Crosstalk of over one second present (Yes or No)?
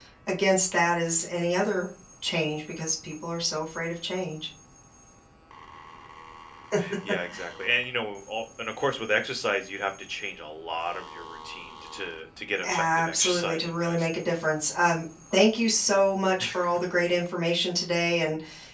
Yes